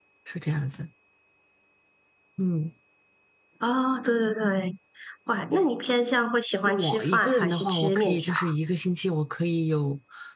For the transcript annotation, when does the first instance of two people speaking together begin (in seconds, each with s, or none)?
6.7 s